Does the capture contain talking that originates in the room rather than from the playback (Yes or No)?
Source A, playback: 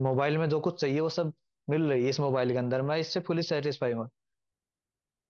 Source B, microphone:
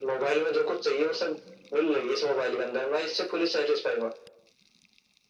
No